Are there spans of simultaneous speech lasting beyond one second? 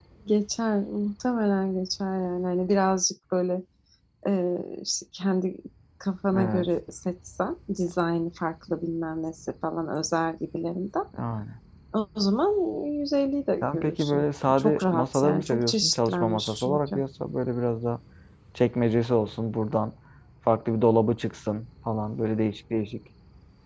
Yes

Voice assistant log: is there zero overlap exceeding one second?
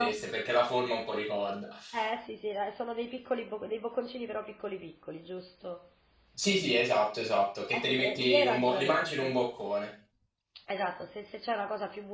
No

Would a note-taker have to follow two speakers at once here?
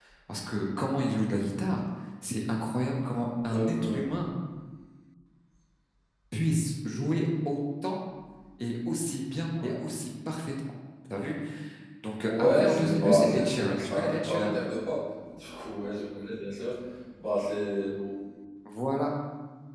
Yes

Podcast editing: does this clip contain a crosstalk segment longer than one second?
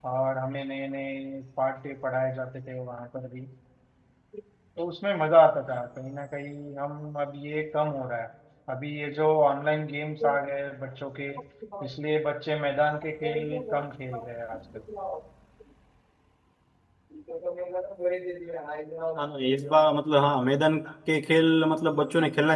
No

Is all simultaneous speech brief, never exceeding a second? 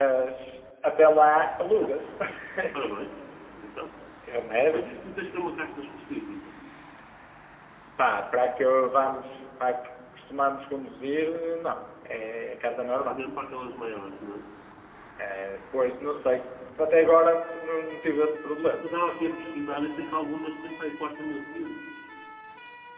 Yes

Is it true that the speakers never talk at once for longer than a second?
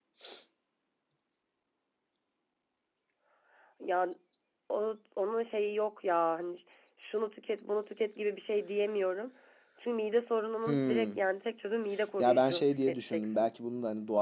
No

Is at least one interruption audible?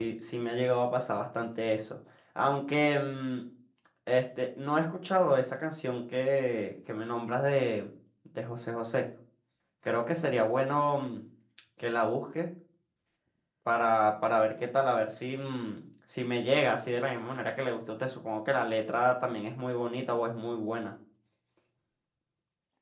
No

